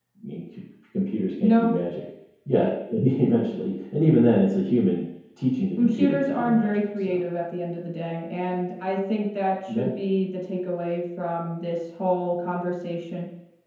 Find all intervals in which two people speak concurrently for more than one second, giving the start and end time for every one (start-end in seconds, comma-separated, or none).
5.8-7.2